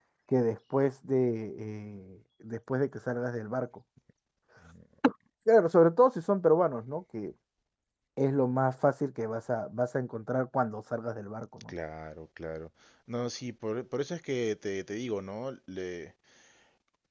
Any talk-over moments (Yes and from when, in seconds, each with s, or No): No